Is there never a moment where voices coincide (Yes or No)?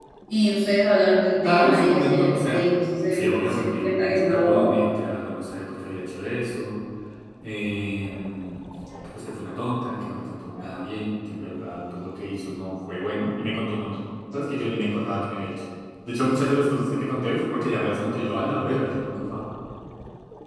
No